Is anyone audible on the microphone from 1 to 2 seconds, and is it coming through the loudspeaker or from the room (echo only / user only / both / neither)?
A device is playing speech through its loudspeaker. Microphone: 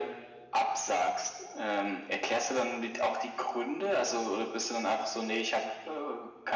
echo only